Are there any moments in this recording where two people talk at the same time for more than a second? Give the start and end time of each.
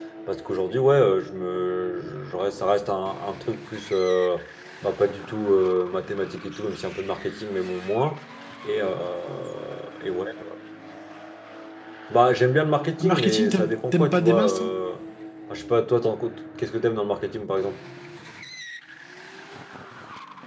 13.0-14.7

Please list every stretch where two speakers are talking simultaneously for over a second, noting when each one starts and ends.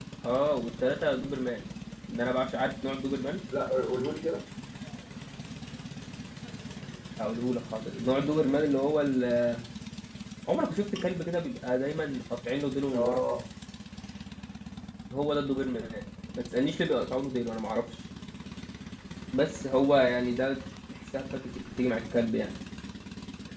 none

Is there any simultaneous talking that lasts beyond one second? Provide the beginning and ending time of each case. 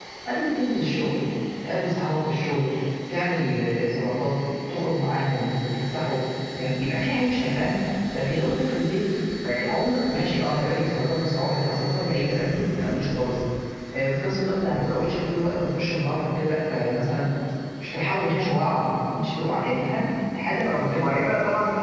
none

